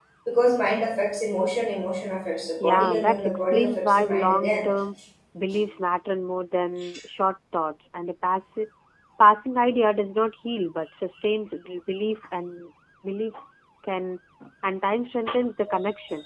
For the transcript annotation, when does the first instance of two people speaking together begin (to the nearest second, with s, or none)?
3 s